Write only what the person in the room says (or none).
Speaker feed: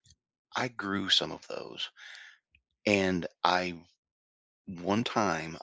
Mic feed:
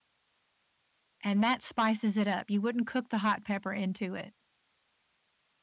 and that spices it up. You wouldn't cook the hot pepper into it.